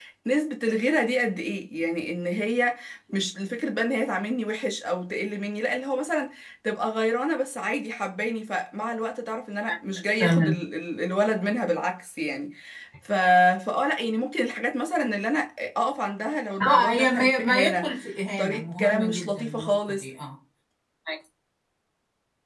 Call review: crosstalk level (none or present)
present